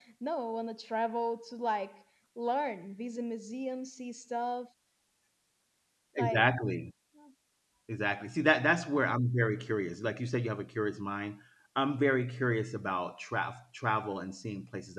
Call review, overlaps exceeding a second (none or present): none